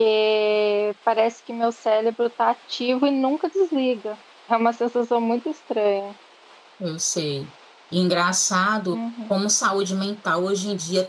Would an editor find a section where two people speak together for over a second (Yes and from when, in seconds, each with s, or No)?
No